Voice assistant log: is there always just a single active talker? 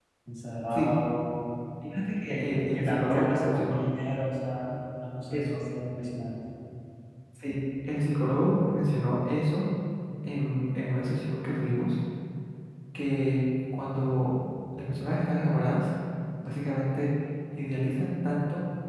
No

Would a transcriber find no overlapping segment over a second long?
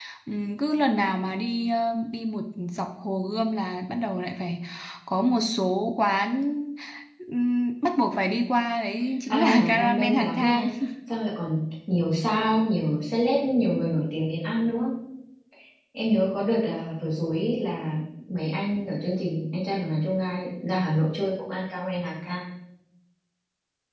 No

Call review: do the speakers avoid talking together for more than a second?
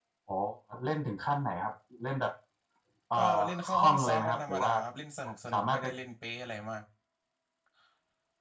No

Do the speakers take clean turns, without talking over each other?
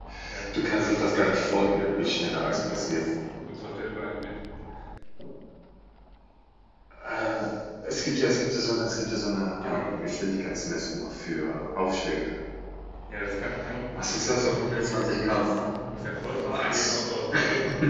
No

